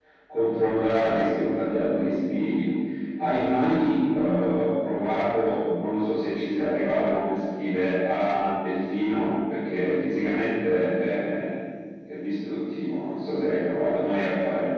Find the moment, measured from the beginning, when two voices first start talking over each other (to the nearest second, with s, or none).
none